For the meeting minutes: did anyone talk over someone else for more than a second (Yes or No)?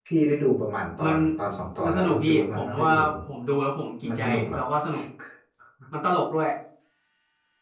Yes